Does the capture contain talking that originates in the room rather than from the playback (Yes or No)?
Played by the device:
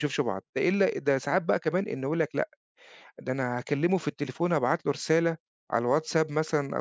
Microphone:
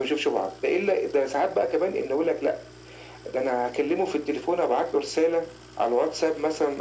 No